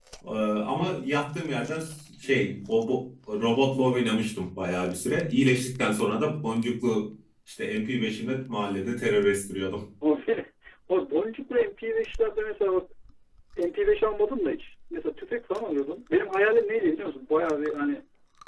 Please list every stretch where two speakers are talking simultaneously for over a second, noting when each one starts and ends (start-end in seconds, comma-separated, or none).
none